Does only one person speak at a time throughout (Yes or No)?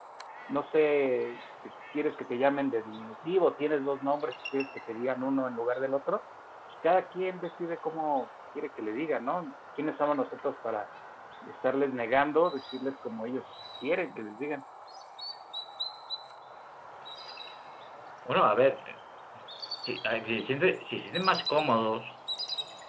Yes